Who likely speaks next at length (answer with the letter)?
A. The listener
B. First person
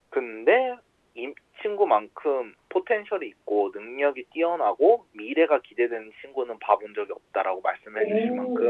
A